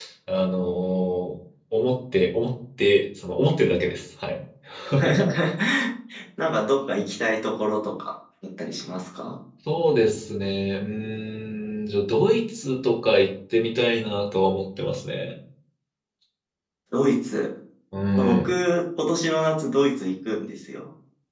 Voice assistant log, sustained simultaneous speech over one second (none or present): none